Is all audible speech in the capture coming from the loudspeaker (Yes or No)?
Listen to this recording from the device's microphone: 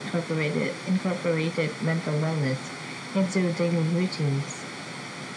Yes